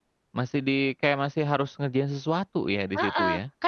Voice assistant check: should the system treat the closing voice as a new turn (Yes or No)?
Yes